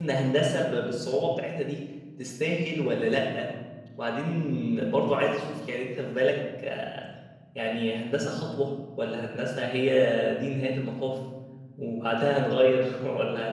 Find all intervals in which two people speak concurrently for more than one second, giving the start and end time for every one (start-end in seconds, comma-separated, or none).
none